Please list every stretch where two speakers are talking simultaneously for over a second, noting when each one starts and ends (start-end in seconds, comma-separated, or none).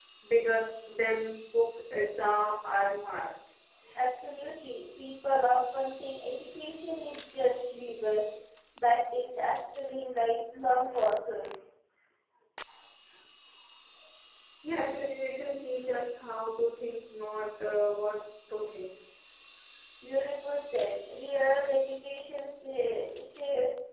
none